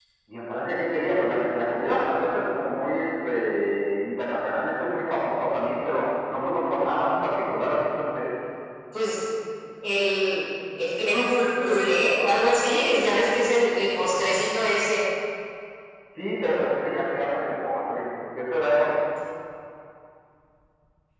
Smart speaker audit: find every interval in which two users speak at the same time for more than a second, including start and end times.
none

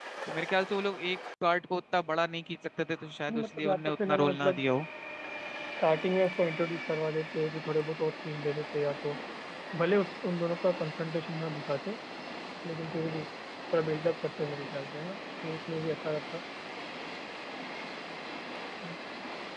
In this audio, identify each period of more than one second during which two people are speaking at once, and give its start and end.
3.3-4.6

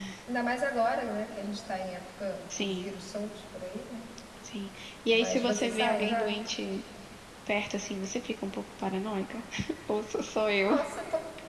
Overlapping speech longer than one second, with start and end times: 5.1-6.4

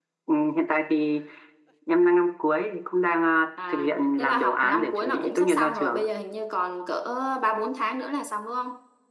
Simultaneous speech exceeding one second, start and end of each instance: 3.7-6.0

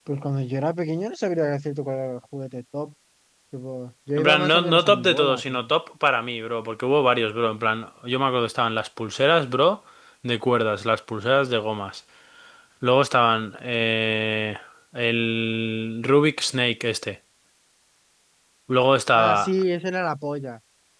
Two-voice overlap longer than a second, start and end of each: 4.2-5.7

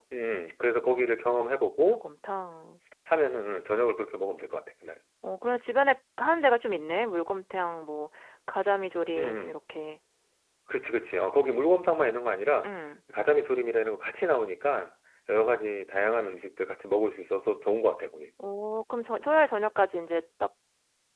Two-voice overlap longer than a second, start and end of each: none

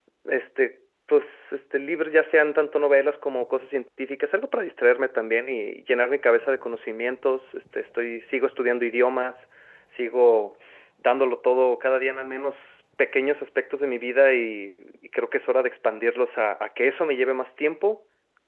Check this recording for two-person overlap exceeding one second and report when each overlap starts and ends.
none

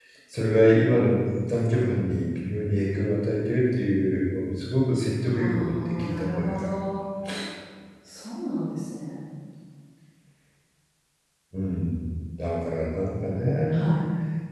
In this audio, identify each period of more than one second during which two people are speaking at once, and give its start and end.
5.3-6.6

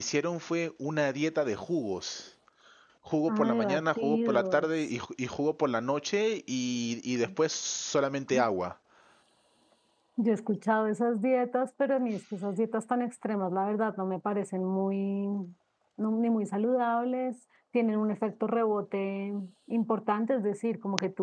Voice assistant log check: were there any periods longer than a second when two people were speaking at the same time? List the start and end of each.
3.3-4.7

